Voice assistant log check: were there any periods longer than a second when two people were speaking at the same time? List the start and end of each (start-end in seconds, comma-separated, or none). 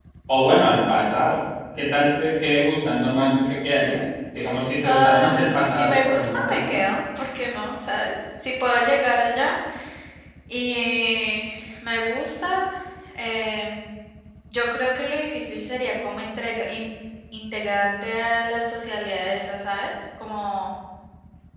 4.8-6.8